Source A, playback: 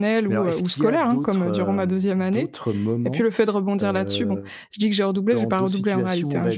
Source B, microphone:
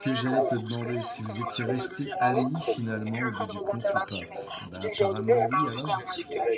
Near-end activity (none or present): present